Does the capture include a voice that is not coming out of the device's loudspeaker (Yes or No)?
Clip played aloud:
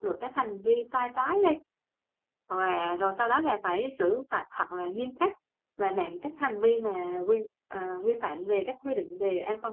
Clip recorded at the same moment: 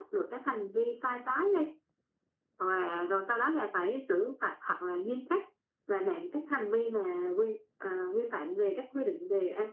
No